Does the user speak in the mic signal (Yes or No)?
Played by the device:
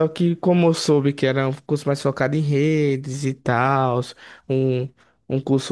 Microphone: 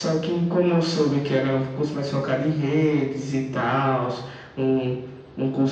No